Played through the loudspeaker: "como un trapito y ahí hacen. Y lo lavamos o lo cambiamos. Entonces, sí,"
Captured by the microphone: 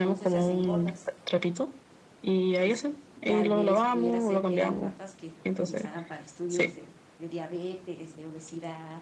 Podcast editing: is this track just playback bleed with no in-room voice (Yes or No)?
No